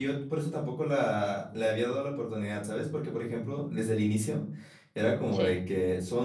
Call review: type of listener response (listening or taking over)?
listening